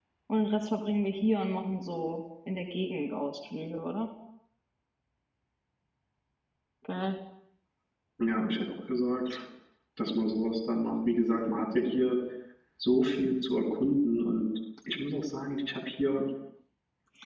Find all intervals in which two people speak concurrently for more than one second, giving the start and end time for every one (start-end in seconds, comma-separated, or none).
none